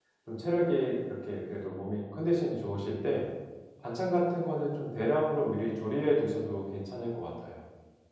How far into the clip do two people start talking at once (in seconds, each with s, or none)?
none